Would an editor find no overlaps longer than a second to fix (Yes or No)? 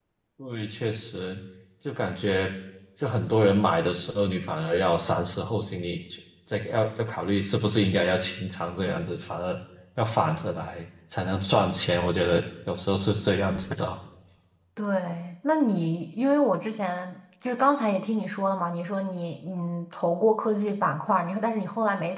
Yes